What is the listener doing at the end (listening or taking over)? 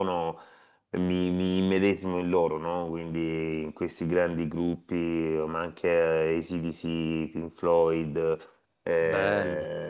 listening